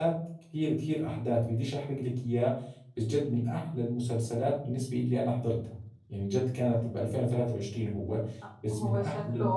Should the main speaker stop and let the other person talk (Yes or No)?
Yes